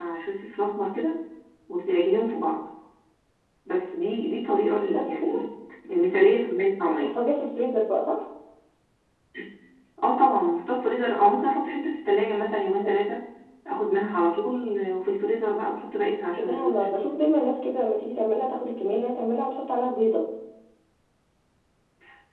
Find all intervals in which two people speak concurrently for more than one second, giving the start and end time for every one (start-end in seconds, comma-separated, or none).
none